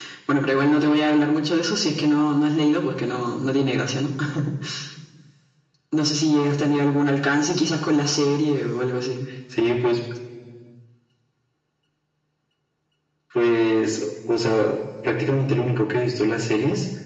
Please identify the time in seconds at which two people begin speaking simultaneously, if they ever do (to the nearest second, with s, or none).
none